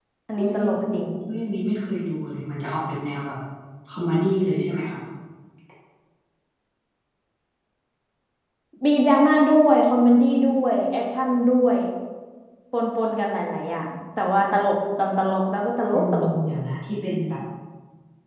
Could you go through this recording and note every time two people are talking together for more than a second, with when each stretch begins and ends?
none

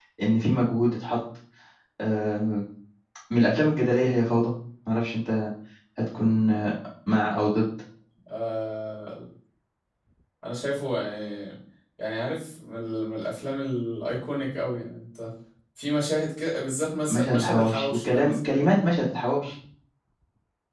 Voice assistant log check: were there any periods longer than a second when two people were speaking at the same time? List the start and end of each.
17.1-18.3

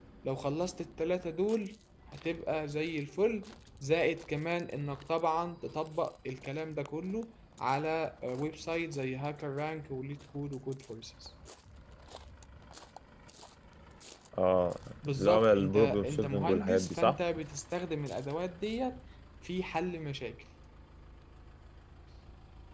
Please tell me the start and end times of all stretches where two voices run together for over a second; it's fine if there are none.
15.1-17.2

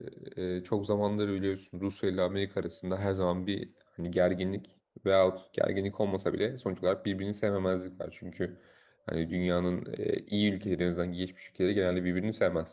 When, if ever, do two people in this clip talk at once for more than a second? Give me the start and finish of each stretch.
none

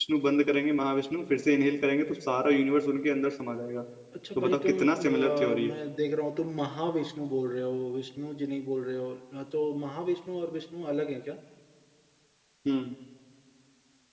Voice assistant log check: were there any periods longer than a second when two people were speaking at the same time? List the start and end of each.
4.3-5.8

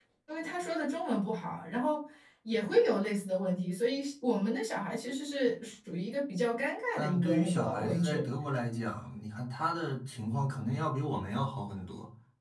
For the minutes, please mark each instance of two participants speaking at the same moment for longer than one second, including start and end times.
7.0-8.2

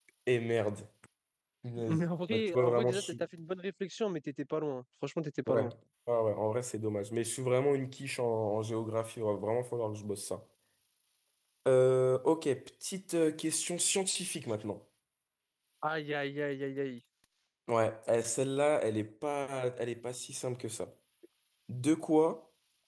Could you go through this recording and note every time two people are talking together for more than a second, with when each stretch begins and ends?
1.9-3.2

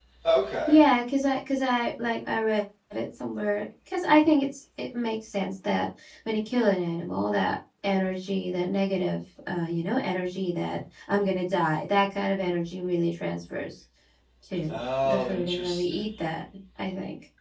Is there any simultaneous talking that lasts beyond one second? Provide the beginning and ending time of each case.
14.7-16.0

